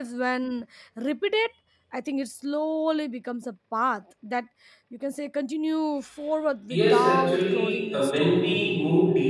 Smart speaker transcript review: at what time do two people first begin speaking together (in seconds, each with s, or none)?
6.7 s